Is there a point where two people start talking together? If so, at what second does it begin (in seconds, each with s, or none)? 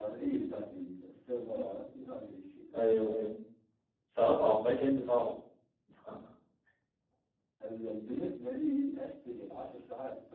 none